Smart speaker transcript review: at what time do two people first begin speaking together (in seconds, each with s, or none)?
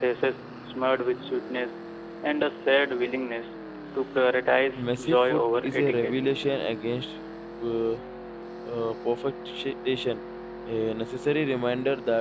4.8 s